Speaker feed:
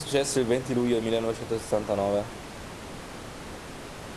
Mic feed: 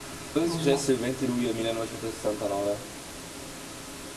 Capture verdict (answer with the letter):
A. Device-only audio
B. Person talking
B